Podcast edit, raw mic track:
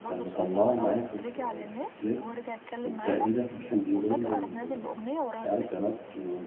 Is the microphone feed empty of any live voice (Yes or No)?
No